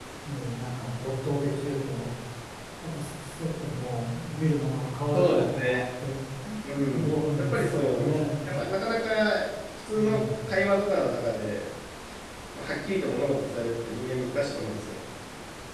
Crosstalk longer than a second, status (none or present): present